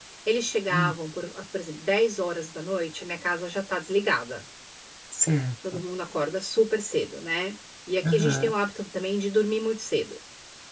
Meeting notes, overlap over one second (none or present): none